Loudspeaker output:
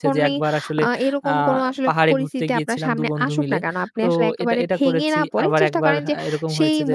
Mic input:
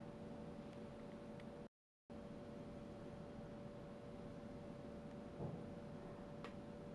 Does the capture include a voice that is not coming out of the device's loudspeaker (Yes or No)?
No